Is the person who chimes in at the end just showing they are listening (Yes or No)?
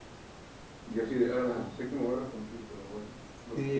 No